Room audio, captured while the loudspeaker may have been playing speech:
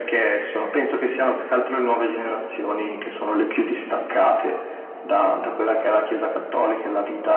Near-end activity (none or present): none